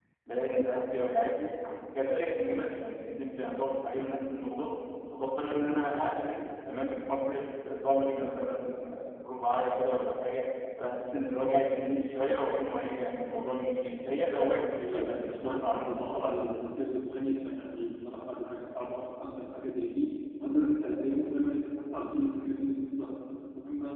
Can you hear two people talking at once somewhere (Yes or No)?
Yes